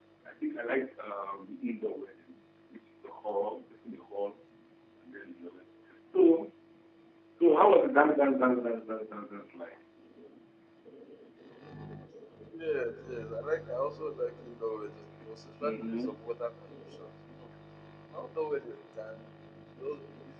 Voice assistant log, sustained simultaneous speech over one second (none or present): none